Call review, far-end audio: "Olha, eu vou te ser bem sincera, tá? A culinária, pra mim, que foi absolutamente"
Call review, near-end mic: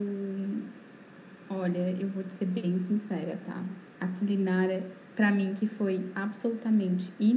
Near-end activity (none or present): none